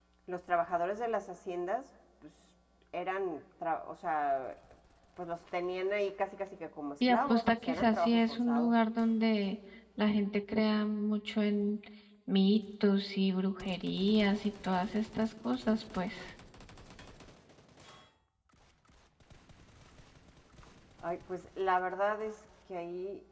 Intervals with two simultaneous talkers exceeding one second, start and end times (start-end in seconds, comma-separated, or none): 7.1-8.7